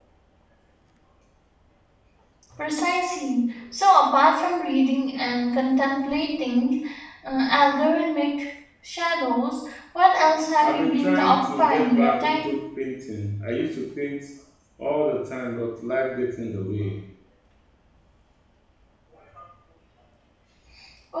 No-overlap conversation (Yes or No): No